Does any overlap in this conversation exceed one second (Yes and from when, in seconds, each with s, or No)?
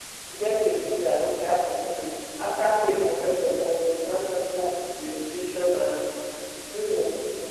No